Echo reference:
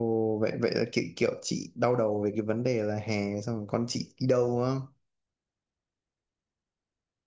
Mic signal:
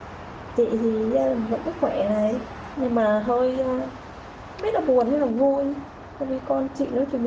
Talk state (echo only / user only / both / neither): user only